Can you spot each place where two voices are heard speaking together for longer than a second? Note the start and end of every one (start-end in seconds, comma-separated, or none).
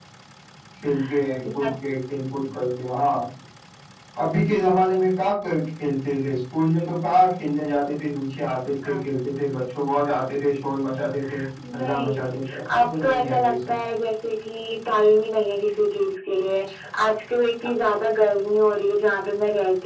11.8-13.8